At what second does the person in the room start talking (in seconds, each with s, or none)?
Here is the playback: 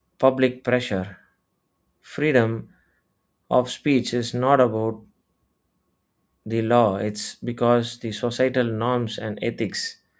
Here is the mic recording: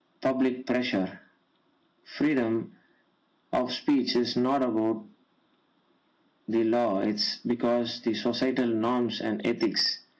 none